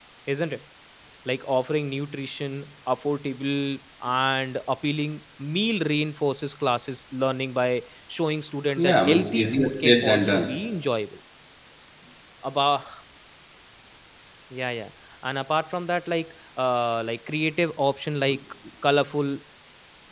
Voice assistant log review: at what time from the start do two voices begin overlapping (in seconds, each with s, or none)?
8.8 s